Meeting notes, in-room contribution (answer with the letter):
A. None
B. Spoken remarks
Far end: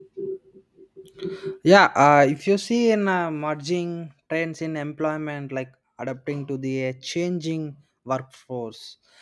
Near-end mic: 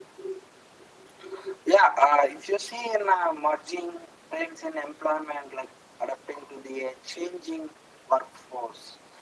A